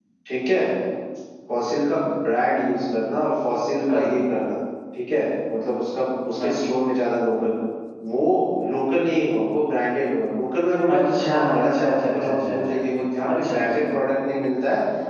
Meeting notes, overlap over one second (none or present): present